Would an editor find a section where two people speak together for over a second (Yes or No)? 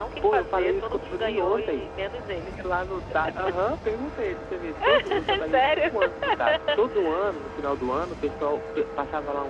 Yes